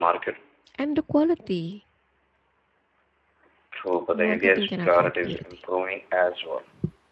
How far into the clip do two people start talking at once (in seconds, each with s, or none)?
4.1 s